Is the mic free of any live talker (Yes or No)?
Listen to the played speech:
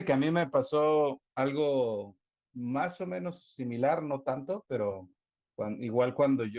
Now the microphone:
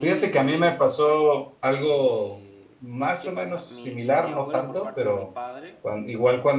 No